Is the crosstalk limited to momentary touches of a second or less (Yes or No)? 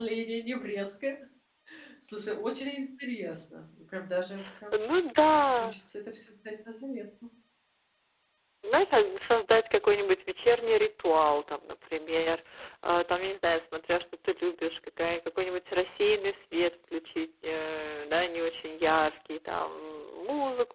Yes